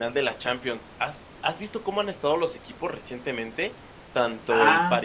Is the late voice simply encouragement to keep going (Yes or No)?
Yes